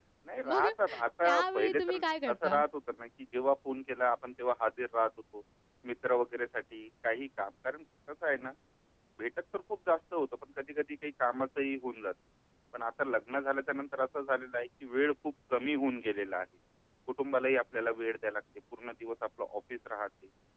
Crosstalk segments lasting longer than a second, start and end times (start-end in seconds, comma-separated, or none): 1.2-2.6